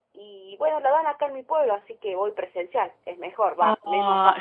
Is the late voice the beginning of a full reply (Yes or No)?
Yes